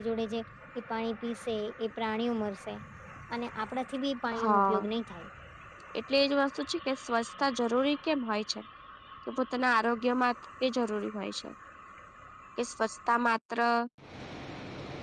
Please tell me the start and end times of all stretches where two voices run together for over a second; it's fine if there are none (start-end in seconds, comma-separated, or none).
none